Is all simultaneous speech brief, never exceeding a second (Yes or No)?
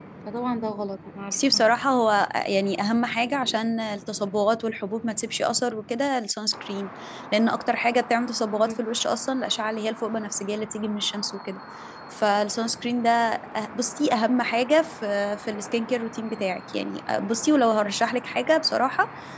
Yes